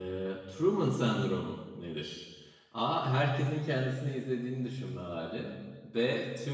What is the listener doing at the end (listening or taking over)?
listening